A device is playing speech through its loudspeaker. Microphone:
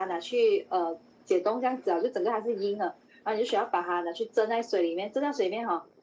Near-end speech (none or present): none